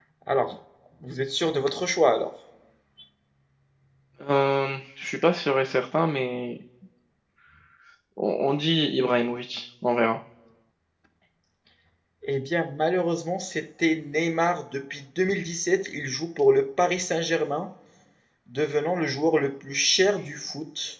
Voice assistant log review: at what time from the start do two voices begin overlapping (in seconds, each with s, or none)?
none